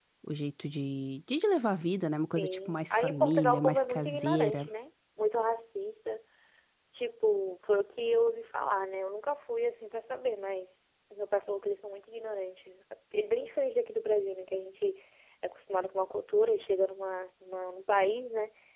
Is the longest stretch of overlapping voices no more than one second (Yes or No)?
No